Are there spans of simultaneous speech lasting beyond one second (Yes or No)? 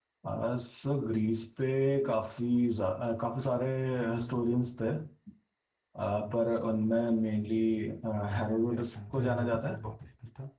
Yes